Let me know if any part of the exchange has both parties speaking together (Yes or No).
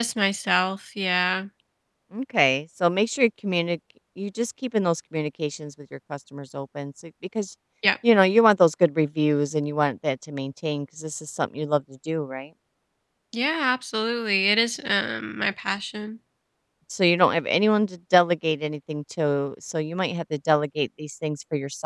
No